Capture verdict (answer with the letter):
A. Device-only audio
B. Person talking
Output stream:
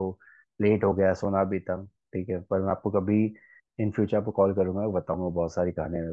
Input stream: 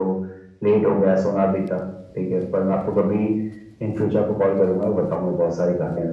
A